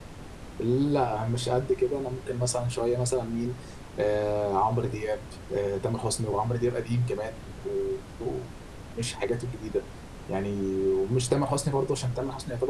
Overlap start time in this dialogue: none

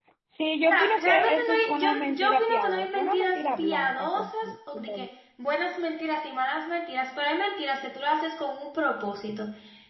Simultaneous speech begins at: 0.7 s

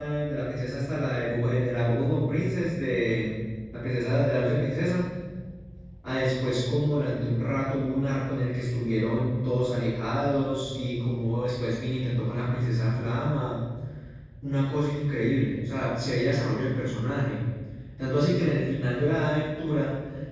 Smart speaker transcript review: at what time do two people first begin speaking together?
none

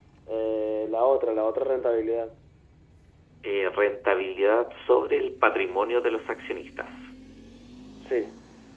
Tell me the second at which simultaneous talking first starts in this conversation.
none

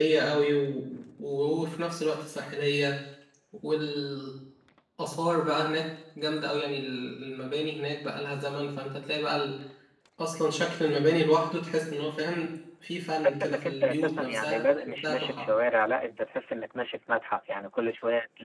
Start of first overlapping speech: 13.2 s

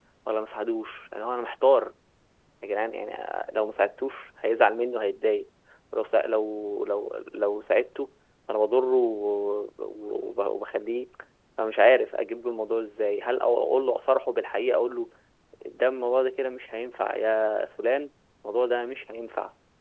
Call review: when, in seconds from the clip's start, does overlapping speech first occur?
none

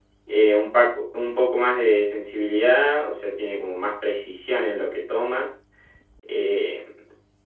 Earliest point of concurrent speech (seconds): none

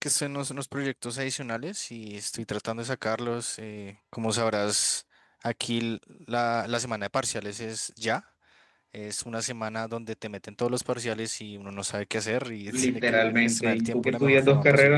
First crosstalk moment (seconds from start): 12.7 s

